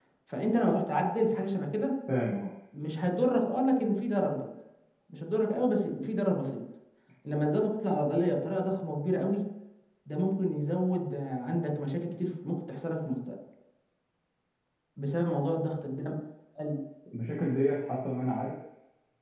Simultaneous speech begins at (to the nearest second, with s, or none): none